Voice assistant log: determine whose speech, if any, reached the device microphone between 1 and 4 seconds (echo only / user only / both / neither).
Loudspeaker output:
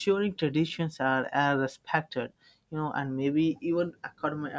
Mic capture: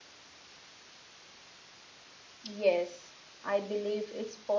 user only